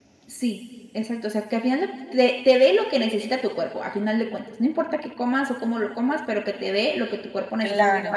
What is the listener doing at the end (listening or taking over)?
listening